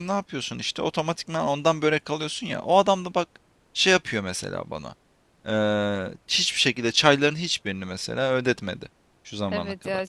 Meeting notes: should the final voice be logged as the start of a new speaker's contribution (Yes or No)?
Yes